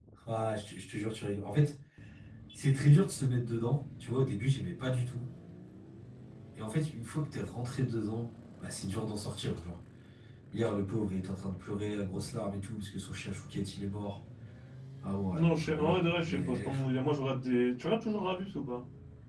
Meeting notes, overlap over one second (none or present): present